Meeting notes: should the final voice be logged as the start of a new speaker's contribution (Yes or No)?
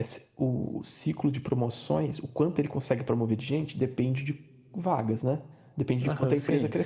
Yes